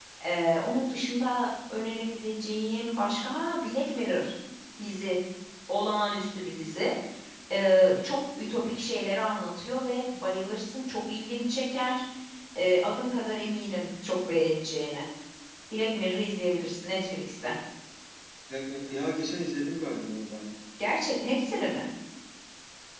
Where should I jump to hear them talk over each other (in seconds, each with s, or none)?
none